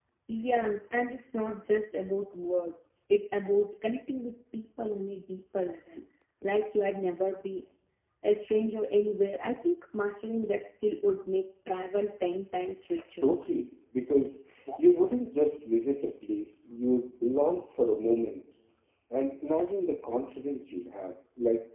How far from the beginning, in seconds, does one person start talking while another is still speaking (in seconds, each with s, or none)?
none